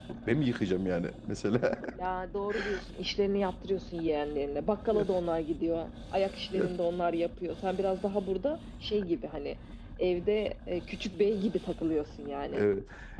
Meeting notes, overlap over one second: none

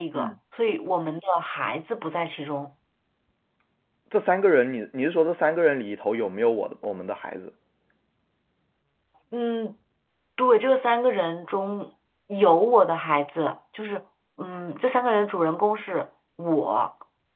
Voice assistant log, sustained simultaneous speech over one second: none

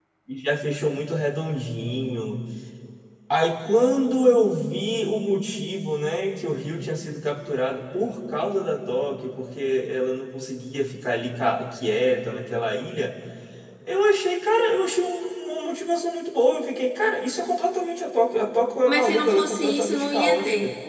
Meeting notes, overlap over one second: present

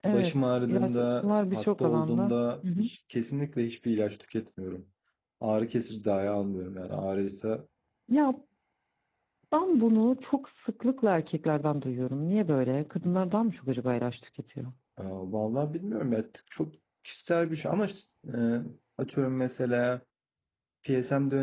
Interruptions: present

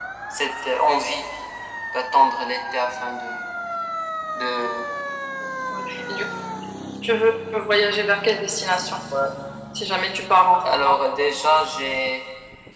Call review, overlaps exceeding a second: none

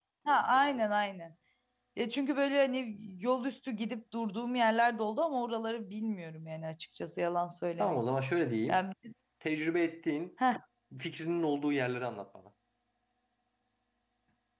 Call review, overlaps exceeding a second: none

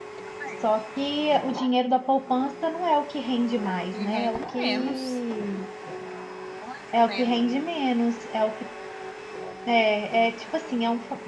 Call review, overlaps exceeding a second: present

